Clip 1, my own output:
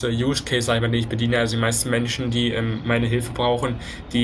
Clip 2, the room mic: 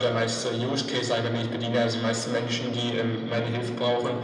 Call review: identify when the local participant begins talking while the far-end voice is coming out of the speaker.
none

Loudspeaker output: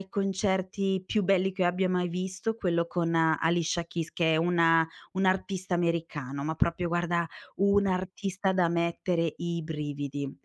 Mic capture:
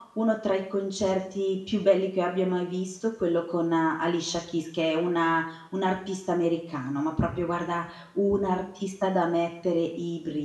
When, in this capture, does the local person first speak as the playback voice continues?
none

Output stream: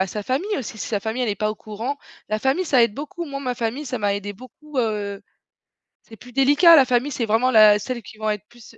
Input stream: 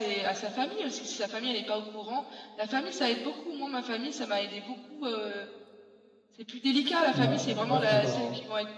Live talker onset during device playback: 7.1 s

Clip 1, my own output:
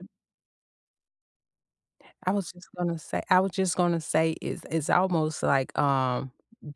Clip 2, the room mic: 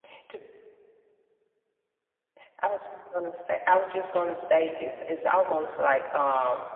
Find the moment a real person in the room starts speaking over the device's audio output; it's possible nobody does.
none

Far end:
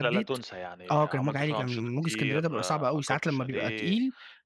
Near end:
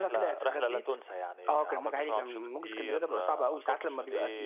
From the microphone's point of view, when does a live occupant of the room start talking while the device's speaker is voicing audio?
none

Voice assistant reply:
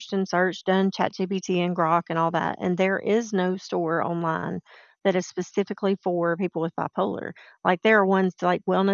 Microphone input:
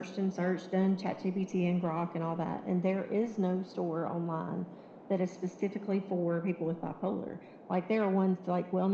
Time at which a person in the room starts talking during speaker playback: none

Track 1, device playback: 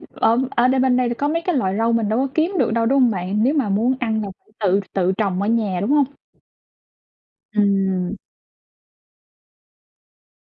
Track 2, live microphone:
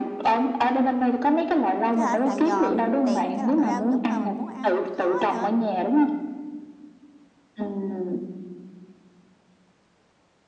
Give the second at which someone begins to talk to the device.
1.9 s

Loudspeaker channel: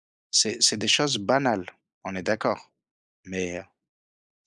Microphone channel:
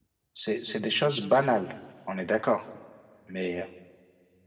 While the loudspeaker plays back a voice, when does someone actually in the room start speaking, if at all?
none

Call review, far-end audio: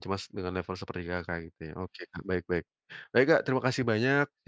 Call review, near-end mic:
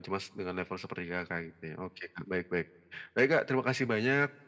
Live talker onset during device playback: none

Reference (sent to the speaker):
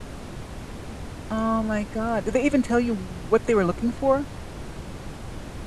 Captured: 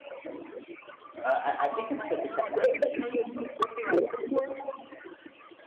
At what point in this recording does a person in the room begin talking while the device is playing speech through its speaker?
1.2 s

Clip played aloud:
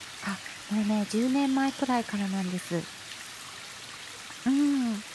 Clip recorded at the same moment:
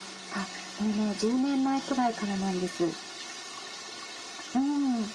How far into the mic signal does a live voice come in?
none

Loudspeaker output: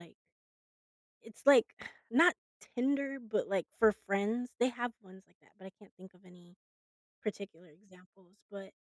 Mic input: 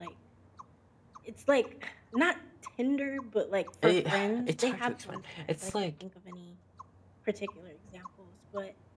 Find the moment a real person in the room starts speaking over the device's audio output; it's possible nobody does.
3.8 s

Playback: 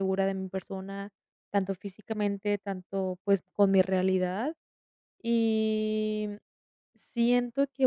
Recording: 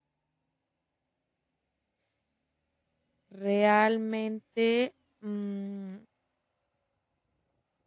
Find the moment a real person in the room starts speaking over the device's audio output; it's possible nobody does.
3.3 s

